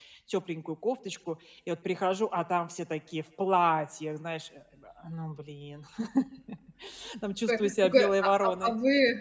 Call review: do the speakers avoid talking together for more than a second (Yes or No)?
No